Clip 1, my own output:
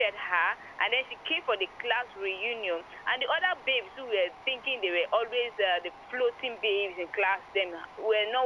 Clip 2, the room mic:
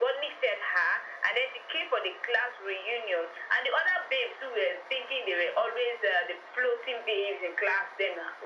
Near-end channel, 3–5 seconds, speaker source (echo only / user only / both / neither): echo only